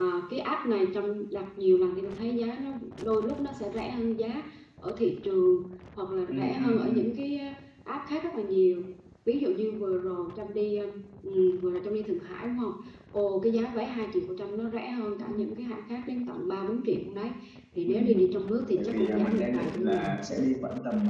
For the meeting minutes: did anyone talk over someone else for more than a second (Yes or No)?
Yes